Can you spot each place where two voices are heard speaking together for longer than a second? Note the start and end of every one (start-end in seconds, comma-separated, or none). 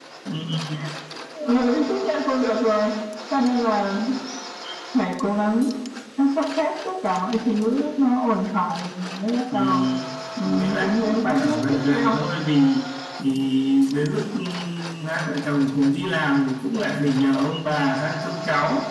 10.4-12.2